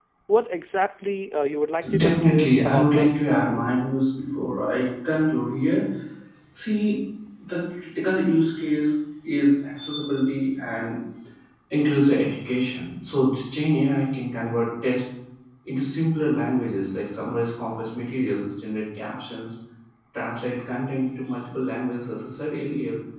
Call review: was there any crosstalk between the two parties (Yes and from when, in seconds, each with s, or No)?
Yes, from 1.8 s